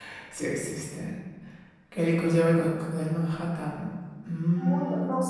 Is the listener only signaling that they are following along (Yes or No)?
No